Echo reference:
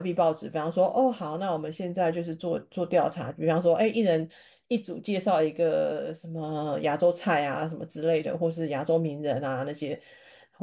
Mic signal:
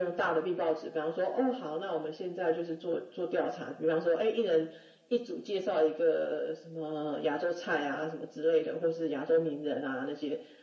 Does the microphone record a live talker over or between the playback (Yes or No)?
No